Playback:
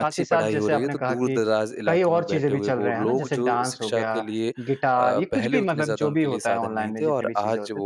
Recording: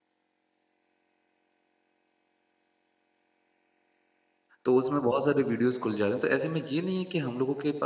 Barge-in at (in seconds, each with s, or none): 4.6 s